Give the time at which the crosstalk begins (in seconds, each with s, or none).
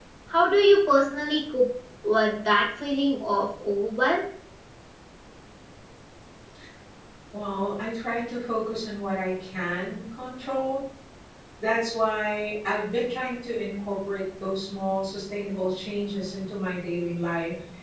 none